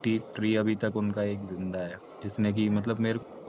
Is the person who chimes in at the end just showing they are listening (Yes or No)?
Yes